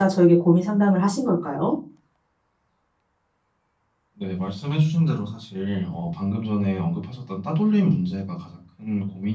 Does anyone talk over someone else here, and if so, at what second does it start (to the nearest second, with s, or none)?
none